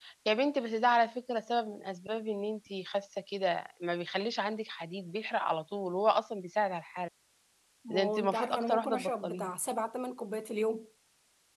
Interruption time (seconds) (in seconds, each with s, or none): 7.9 s